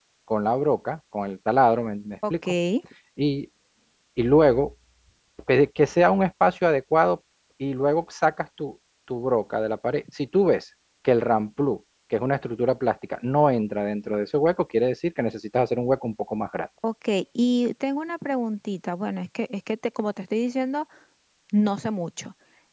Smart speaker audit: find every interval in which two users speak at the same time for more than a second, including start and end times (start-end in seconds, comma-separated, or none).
none